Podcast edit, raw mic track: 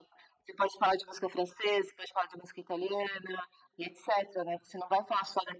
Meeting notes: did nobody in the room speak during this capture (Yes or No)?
Yes